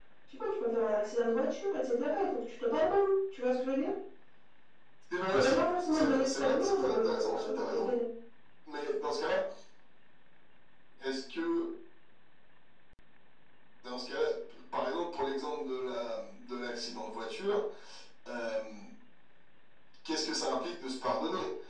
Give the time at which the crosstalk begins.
5.3 s

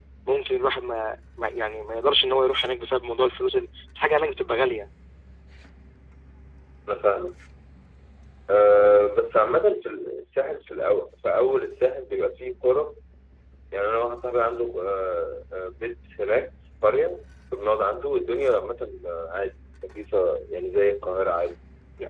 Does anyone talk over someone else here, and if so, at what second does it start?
none

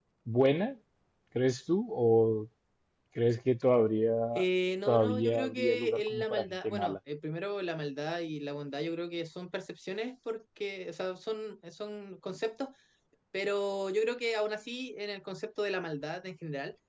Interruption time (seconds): 4.9 s

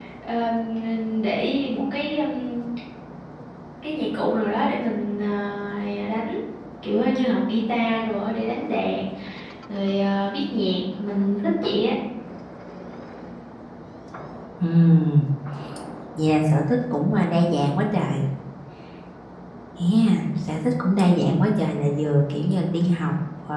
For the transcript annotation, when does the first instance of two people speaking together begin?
none

